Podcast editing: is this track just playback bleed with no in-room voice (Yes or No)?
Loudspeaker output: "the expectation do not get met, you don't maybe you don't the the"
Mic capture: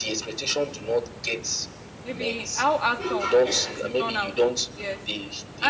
No